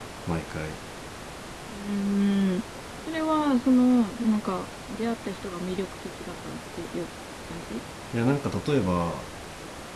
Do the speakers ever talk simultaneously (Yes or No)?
No